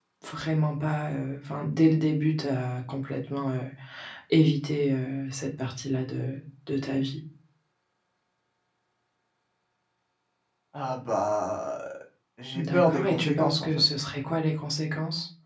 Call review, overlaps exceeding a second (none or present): present